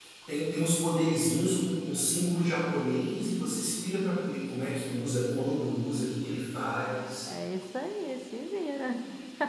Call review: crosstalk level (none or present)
none